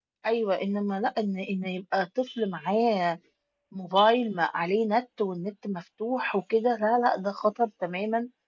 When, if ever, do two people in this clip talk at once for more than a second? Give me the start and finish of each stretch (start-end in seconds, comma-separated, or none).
none